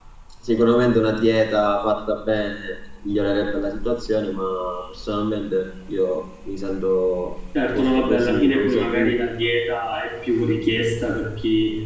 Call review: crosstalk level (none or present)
present